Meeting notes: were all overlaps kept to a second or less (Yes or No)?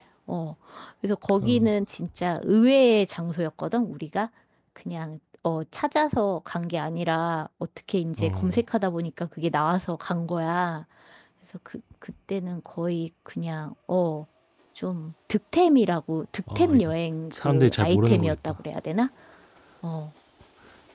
No